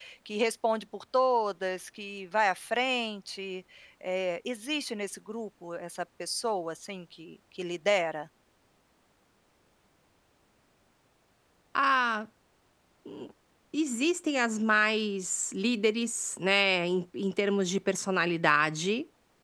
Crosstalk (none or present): none